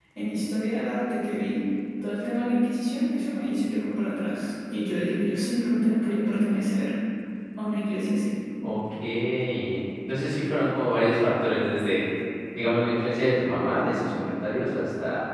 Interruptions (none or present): none